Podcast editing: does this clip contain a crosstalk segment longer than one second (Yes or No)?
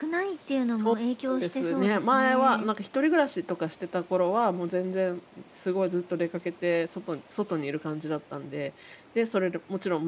Yes